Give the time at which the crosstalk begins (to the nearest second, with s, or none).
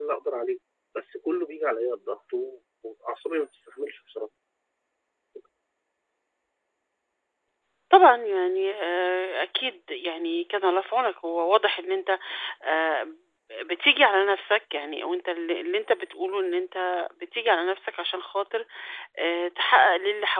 none